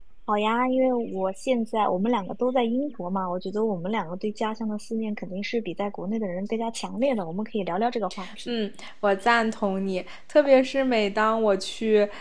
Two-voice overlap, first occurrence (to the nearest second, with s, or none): none